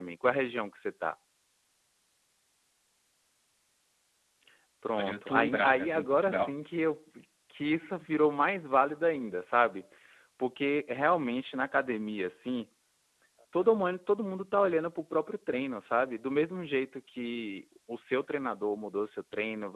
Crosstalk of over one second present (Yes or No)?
Yes